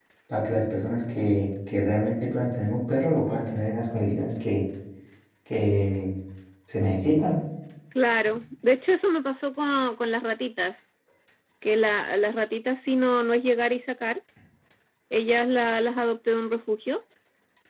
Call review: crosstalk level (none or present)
none